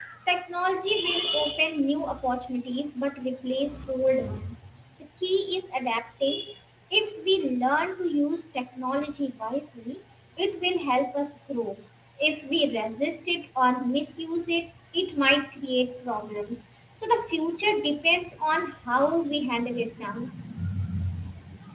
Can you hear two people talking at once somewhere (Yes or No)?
No